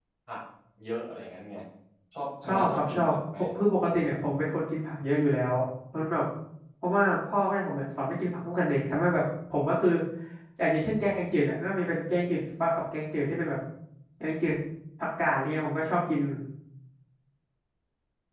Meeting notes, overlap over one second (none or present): present